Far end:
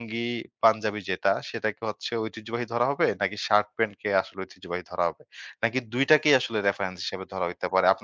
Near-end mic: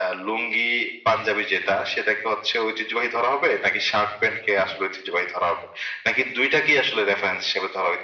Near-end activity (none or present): none